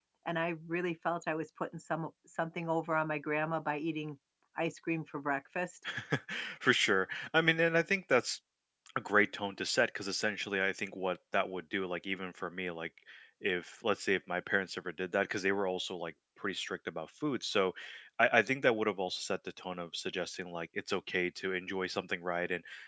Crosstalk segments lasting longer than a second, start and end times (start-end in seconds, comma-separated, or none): none